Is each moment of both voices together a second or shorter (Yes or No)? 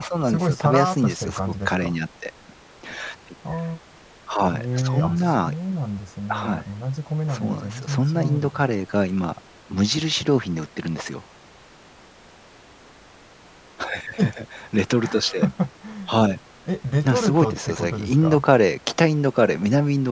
No